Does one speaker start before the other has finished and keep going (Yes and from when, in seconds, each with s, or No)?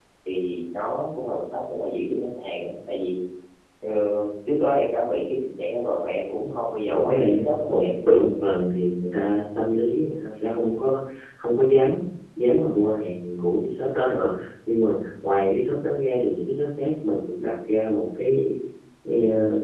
Yes, from 6.9 s